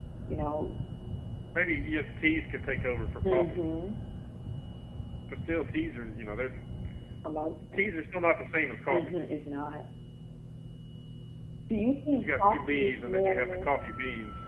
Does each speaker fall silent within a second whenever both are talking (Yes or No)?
No